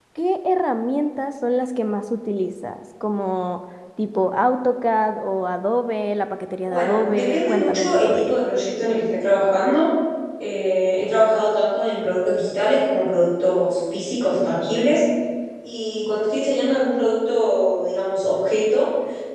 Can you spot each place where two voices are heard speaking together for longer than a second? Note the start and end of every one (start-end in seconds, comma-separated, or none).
6.7-8.4